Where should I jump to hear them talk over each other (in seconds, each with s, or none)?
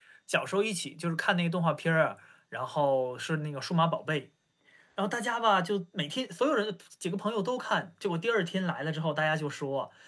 none